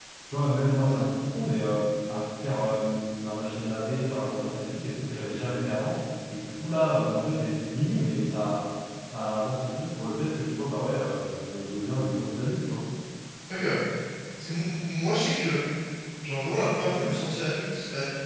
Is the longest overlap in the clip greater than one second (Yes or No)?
No